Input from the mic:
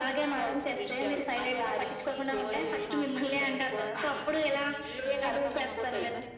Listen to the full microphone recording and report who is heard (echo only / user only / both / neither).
both